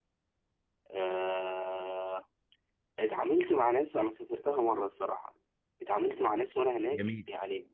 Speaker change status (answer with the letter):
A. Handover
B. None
B